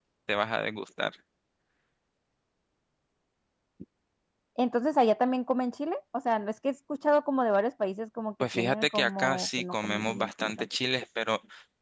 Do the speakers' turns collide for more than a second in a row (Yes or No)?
Yes